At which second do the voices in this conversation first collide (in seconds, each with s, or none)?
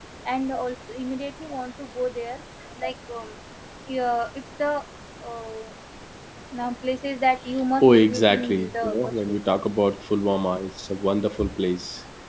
7.8 s